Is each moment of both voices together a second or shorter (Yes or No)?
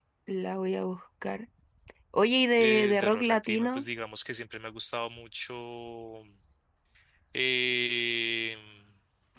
No